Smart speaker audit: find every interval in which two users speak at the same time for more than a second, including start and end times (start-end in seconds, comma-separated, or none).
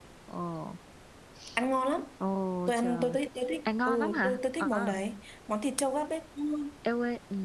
3.6-4.9